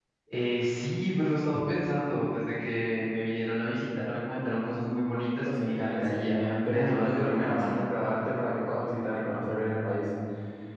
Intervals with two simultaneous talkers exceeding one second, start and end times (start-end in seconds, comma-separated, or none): 5.5-7.8